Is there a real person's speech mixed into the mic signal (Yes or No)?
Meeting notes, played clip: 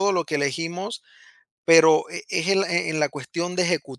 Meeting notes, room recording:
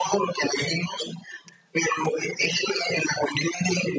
No